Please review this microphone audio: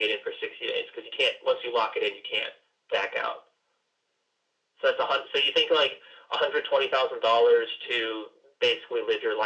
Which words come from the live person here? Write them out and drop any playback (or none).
none